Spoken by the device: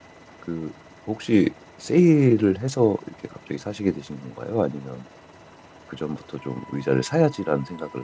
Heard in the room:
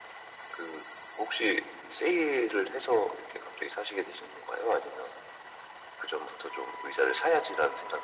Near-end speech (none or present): none